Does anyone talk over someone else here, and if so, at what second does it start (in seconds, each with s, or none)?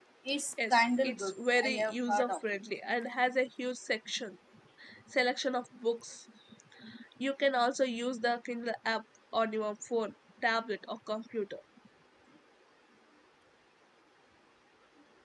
0.7 s